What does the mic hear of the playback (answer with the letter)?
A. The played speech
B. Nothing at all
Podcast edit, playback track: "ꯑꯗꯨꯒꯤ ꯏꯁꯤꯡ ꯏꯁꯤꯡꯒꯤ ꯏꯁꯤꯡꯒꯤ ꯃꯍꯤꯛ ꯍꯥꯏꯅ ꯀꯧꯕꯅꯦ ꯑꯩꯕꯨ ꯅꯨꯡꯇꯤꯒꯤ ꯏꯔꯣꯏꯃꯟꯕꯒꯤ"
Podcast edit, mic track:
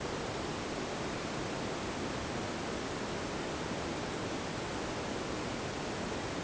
B